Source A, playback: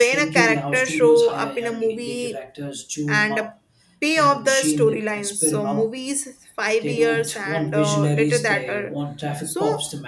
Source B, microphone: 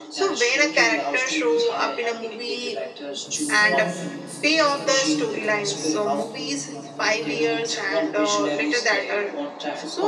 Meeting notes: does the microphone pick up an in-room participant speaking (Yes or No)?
Yes